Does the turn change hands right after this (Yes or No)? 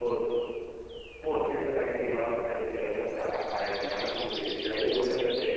No